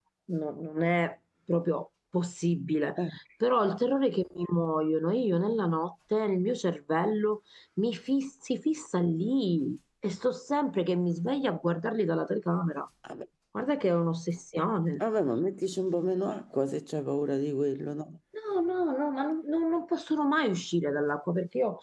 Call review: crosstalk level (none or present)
none